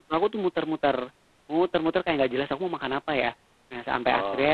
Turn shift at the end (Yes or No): No